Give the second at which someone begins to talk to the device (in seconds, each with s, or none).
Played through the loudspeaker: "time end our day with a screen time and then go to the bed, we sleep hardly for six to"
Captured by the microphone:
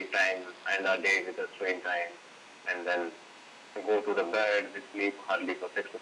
none